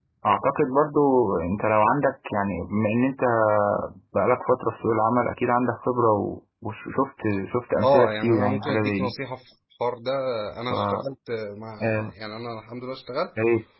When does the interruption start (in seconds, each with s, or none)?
7.8 s